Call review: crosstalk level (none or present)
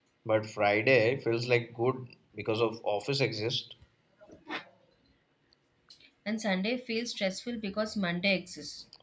none